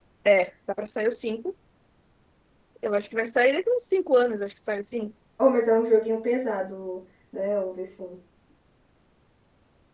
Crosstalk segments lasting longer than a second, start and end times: none

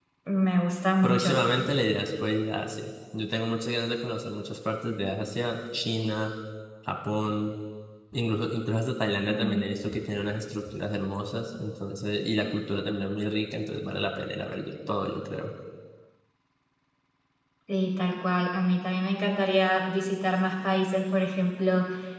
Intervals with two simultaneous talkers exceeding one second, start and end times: none

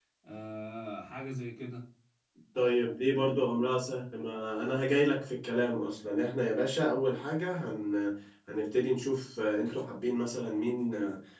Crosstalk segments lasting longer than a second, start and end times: none

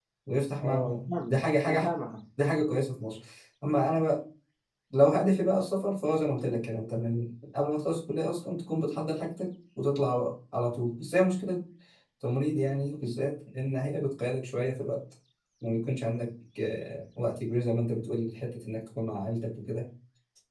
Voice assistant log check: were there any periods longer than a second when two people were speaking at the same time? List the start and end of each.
0.6-1.9

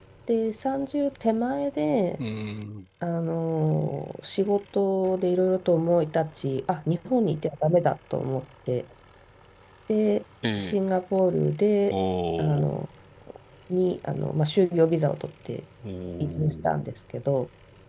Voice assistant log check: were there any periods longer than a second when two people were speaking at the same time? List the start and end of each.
none

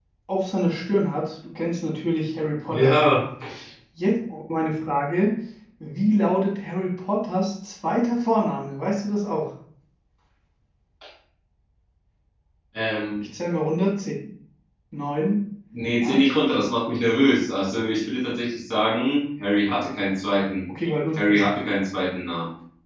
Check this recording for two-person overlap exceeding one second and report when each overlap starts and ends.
none

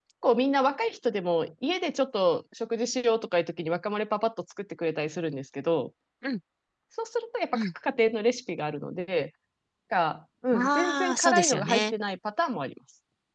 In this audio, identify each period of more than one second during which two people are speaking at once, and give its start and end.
10.5-11.9

